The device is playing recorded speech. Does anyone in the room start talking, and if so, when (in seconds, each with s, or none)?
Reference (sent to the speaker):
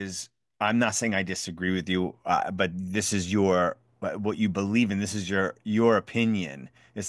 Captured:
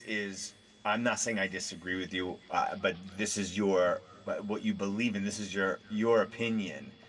none